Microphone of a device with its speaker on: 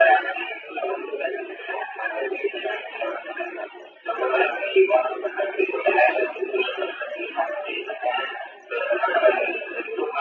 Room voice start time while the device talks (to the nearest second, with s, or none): none